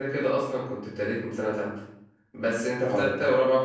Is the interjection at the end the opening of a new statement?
No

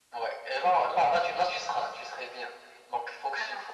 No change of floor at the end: Yes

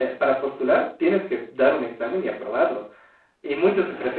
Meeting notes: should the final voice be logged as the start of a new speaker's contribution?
No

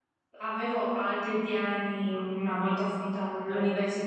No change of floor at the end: Yes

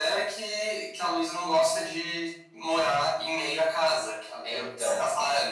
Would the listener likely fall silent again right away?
Yes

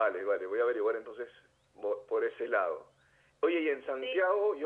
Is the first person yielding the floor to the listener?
No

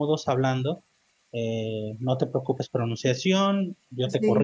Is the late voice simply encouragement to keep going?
Yes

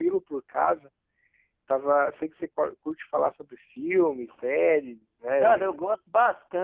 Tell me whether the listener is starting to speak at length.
Yes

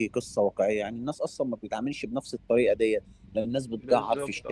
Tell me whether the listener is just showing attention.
Yes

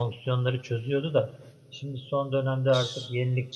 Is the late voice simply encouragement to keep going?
Yes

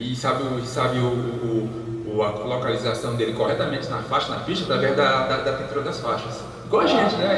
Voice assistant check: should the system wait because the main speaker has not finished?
No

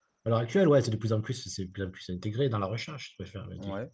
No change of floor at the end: Yes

